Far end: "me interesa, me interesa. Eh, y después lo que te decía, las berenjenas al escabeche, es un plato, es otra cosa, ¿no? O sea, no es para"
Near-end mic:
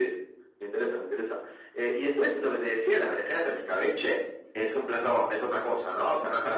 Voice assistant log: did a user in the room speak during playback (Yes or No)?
No